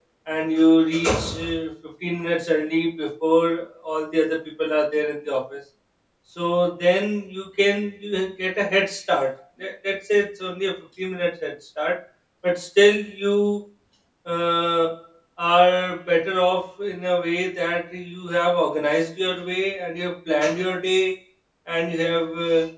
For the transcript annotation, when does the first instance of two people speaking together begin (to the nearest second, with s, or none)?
none